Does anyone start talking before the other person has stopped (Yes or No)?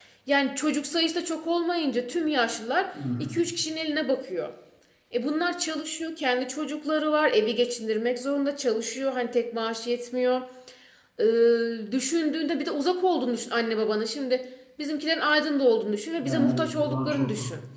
Yes